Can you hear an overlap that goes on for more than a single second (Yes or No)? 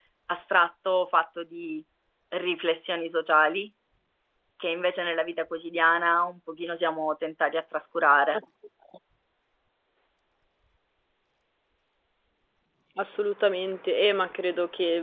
No